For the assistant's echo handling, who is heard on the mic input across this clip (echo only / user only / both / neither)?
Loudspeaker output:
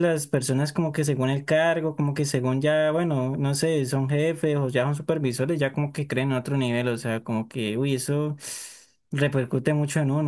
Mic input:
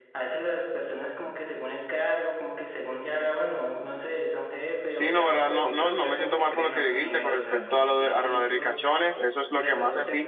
both